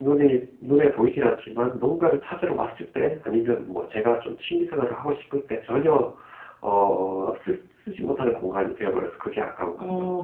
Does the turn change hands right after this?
Yes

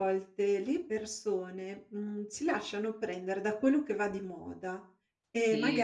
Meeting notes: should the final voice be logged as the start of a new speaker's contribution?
No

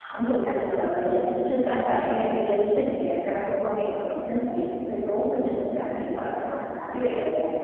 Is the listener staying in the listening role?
No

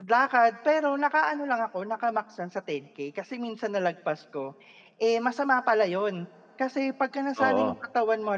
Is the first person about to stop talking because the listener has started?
No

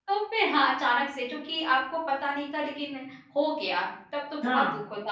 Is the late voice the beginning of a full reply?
No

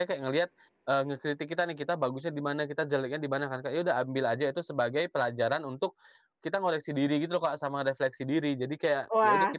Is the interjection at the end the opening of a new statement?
Yes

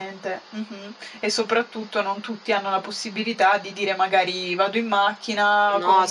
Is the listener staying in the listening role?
Yes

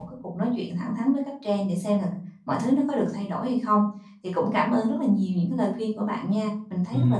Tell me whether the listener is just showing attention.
No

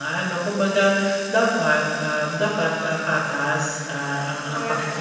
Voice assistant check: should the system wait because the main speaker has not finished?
Yes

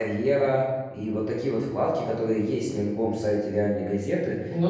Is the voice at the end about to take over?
No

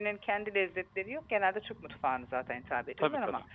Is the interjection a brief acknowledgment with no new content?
Yes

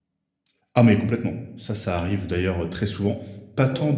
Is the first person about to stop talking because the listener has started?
No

